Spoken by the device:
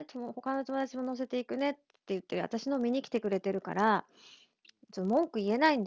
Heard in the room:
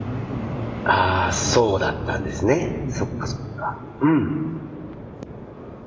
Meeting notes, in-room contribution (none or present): present